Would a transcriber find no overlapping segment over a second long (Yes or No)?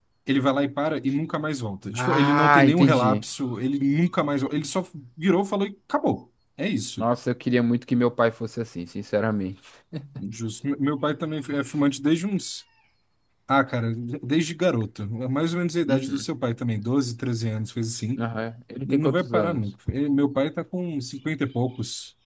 No